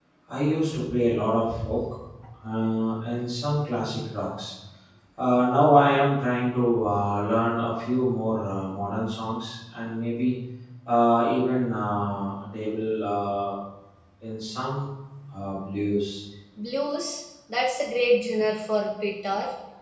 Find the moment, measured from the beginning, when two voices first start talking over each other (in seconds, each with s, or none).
none